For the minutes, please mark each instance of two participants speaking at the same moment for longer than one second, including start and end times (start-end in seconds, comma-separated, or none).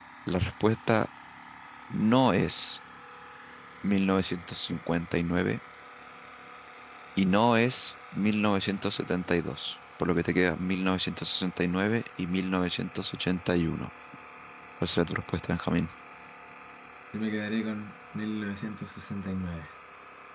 none